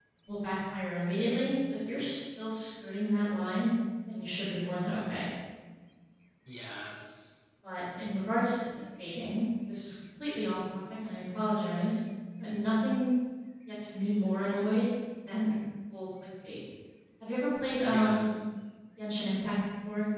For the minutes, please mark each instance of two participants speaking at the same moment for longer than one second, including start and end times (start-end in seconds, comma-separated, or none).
none